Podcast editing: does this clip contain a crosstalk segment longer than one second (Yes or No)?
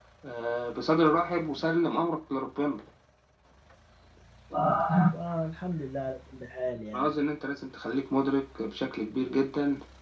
No